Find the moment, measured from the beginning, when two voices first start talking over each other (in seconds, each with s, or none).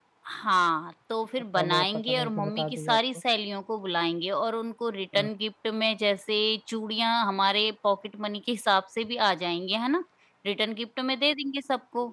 1.6 s